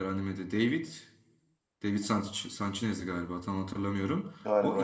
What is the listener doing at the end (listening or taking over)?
listening